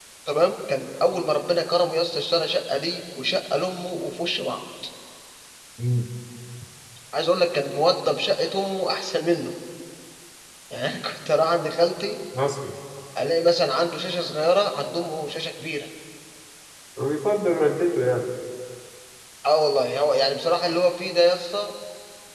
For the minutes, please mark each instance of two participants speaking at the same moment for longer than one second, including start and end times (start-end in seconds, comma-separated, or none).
none